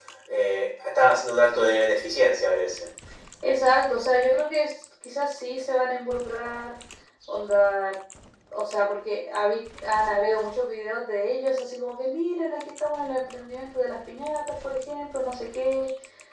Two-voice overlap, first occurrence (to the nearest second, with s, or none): none